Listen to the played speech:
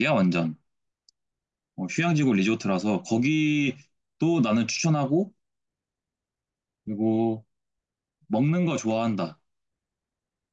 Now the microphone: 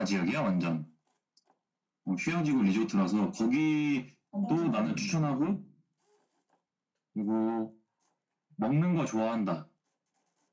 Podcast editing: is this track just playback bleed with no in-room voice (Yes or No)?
No